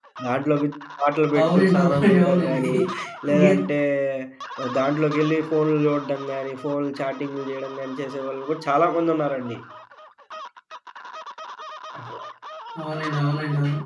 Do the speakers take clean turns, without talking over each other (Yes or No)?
No